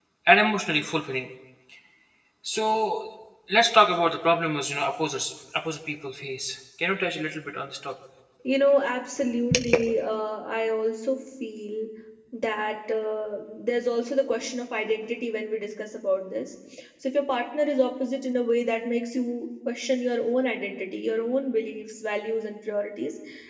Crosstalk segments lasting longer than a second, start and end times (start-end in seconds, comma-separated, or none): none